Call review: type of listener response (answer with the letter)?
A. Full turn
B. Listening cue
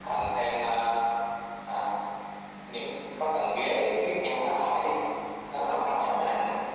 A